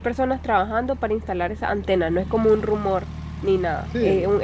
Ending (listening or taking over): taking over